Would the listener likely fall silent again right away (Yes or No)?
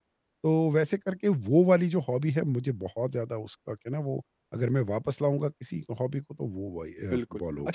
No